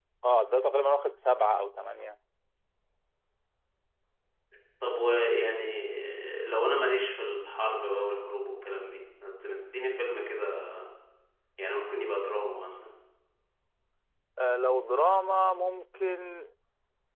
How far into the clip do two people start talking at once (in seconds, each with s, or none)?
none